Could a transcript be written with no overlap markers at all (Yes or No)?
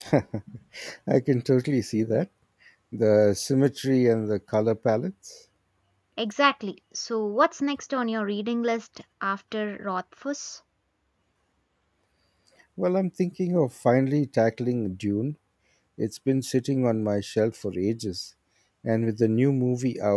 Yes